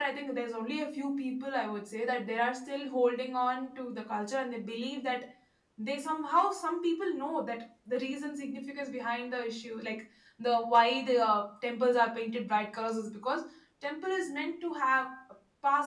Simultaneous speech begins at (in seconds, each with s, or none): none